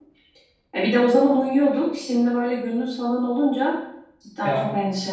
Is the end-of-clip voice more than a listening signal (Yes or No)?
Yes